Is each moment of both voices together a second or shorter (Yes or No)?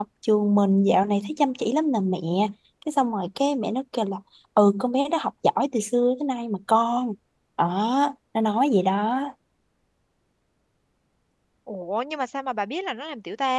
Yes